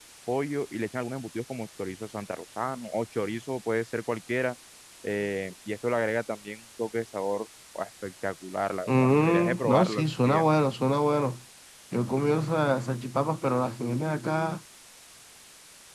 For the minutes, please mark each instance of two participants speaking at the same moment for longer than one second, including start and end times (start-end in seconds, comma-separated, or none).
8.9-10.4